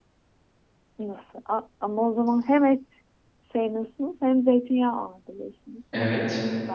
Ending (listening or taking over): taking over